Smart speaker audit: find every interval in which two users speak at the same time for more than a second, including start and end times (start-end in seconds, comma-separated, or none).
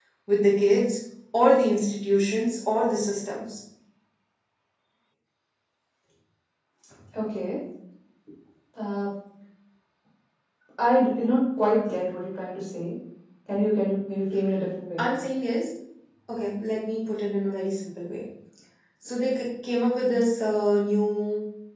none